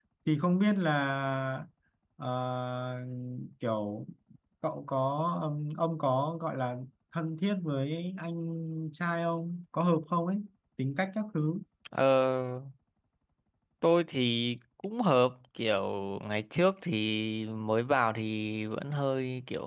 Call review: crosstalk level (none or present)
none